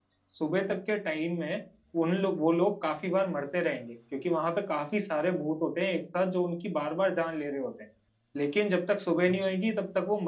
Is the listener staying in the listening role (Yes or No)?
Yes